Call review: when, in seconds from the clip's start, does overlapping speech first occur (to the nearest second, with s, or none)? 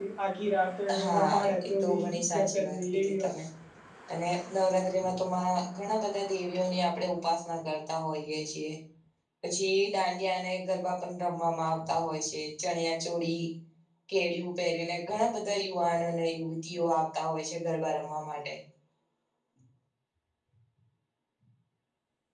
1 s